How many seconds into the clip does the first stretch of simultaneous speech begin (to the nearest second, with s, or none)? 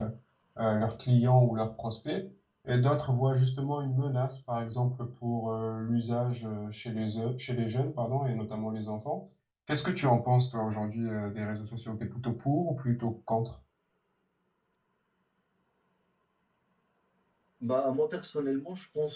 none